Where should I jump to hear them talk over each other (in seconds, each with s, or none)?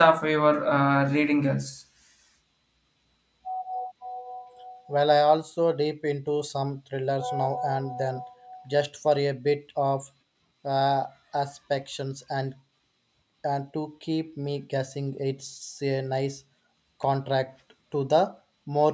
none